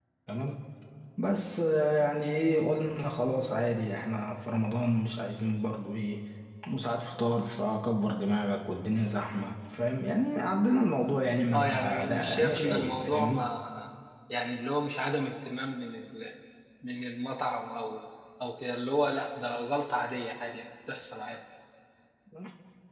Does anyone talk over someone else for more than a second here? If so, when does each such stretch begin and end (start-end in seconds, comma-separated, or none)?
11.5-13.4